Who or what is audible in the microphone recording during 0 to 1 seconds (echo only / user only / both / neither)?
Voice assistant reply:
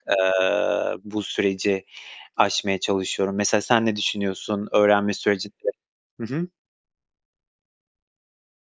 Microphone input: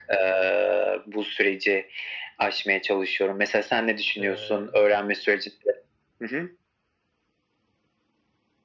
echo only